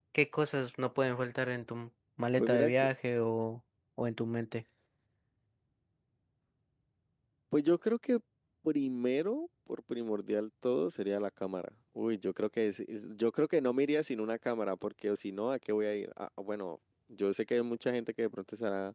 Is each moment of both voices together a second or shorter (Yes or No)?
Yes